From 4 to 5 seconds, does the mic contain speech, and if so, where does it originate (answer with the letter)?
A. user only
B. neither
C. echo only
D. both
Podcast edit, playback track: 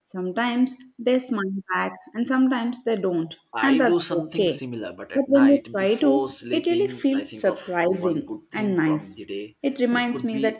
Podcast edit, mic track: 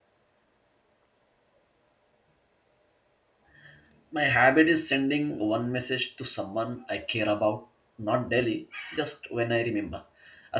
A